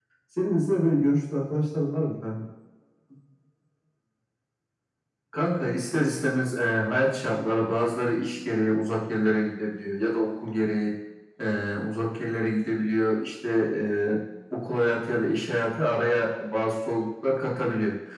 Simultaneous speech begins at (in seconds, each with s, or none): none